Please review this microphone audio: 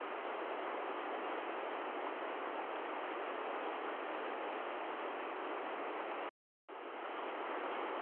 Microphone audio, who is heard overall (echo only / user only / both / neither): neither